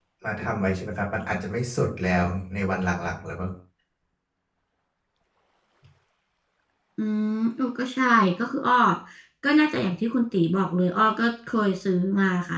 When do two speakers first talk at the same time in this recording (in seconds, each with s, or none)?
none